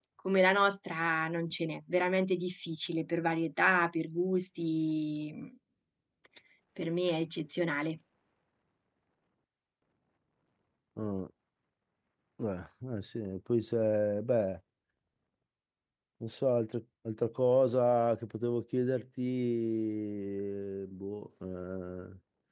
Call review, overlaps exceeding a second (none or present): none